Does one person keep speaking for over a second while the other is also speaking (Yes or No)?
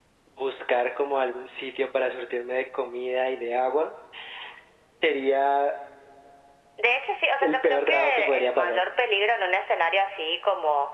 Yes